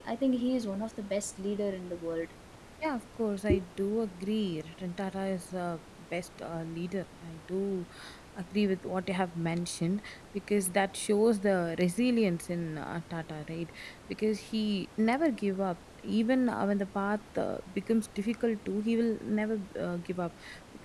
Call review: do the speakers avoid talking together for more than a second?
Yes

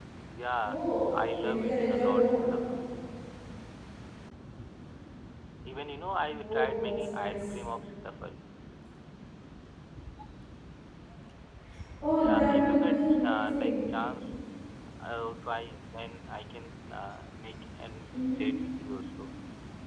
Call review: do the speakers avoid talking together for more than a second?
No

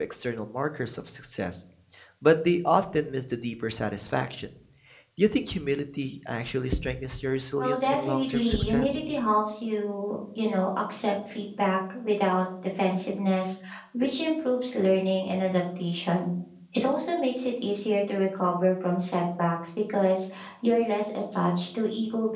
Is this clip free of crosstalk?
No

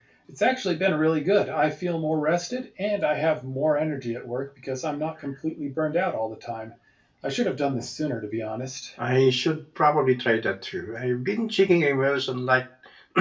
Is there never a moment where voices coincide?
Yes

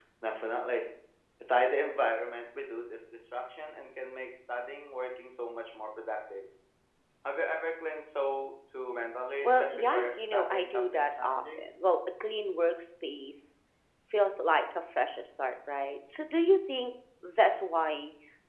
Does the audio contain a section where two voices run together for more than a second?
Yes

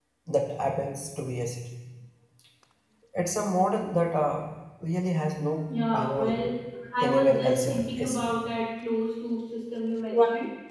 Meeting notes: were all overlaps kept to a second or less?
No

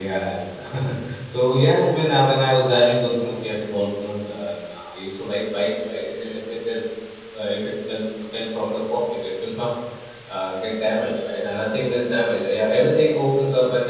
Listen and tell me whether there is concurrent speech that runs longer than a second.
No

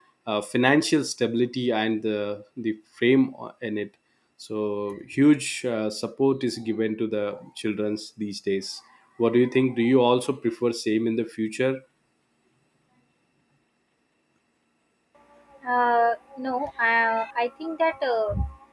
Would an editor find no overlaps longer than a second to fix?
Yes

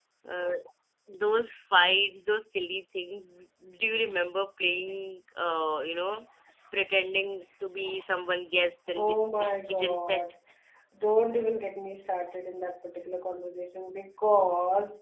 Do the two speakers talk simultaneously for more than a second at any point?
Yes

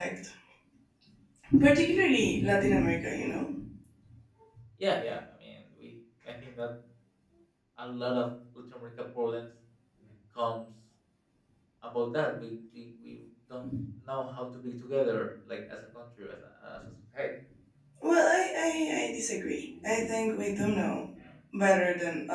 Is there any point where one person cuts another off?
No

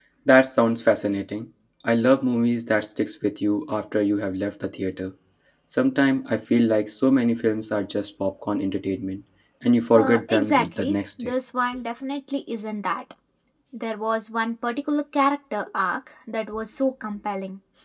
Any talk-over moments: Yes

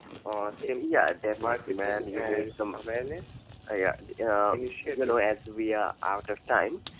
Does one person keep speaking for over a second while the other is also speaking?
Yes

